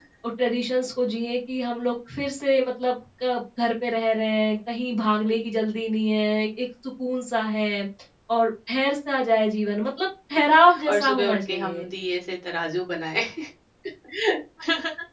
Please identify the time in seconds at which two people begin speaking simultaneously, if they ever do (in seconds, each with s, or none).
10.5 s